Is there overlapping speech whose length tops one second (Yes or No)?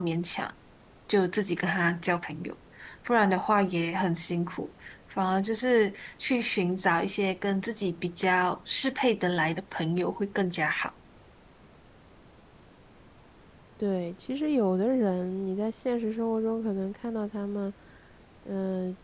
No